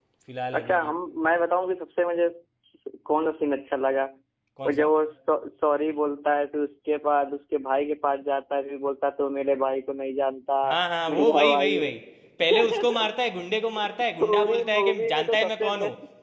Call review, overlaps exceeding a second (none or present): present